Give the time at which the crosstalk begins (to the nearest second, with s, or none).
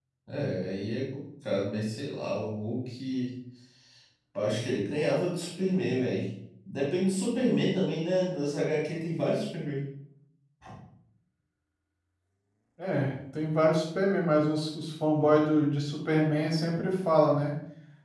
none